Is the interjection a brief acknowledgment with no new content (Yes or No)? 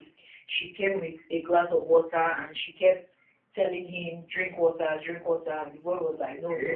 Yes